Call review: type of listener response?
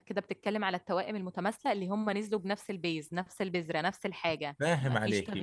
listening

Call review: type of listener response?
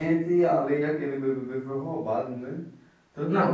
taking over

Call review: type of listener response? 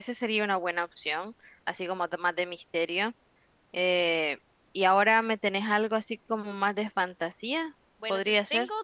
taking over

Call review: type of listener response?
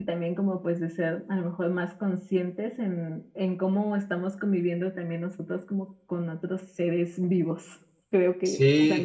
taking over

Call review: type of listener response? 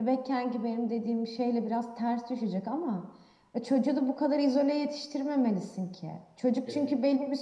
listening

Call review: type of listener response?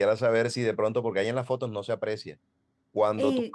listening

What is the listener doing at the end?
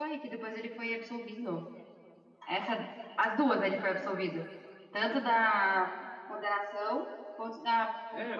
taking over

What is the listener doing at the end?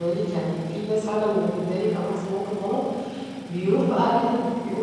listening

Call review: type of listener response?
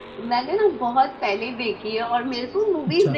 listening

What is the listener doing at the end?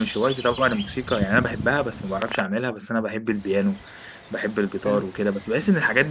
listening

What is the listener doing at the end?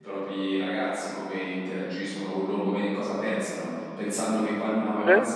listening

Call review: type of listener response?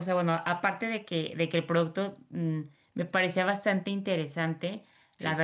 listening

